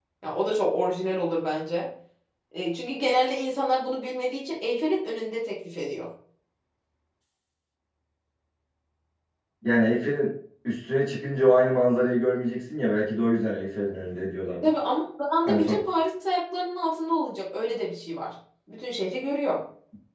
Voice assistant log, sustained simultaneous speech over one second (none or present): none